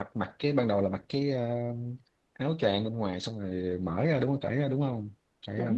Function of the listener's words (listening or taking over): taking over